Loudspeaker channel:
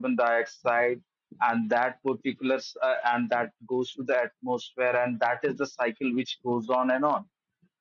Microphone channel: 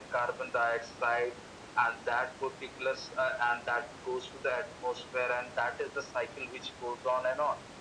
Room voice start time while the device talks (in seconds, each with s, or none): none